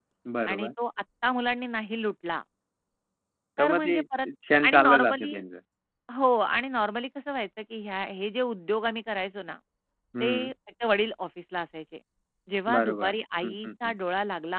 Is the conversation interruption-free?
No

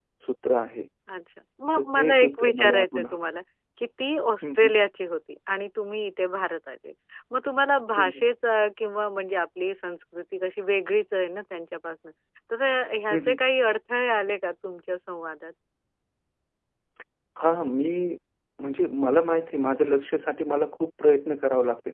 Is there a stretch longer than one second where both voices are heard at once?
Yes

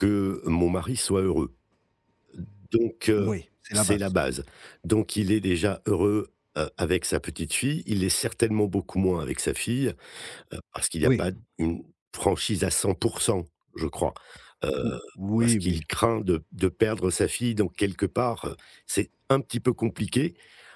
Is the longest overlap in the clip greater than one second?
No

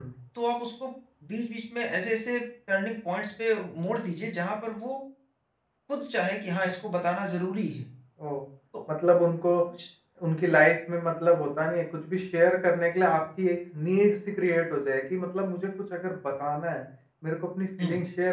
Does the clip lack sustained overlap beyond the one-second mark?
Yes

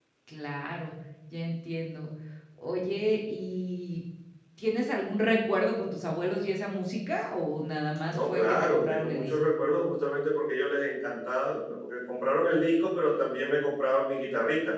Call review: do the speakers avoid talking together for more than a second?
No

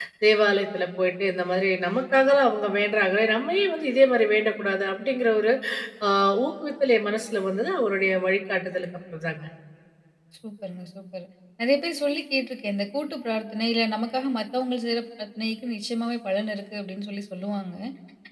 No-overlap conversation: Yes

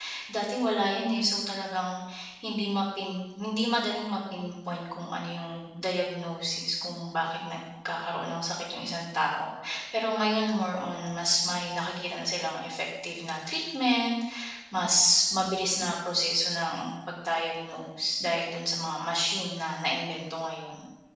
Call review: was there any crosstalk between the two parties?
No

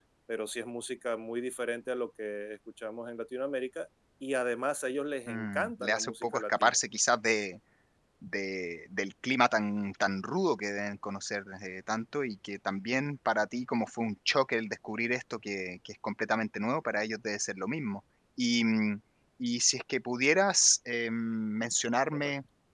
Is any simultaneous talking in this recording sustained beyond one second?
Yes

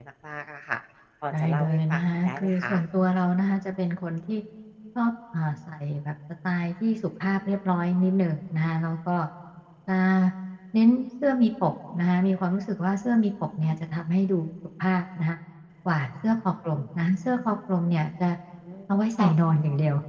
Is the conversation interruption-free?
No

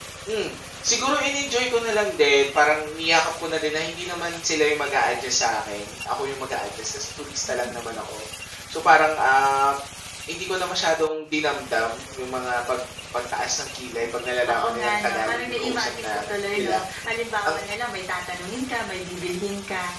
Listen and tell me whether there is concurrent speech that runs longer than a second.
Yes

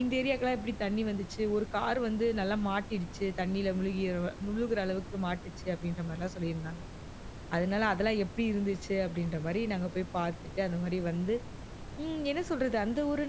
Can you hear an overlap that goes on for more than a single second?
No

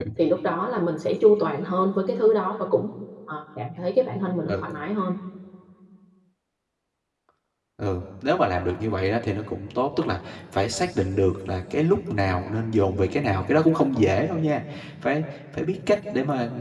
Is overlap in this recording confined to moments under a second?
Yes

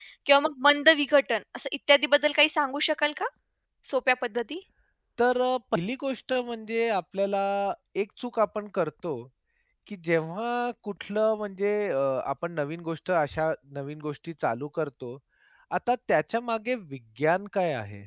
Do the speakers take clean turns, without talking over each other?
Yes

